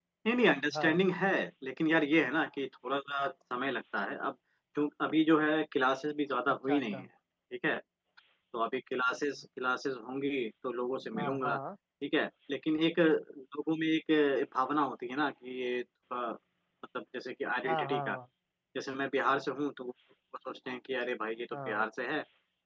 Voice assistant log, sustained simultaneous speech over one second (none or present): none